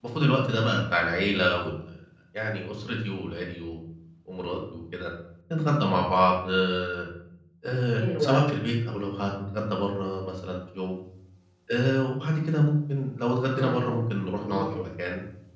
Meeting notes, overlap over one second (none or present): none